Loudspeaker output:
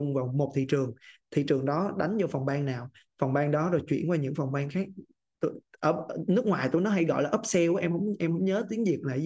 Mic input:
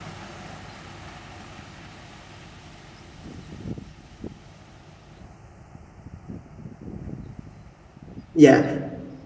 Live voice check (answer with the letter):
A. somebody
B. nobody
A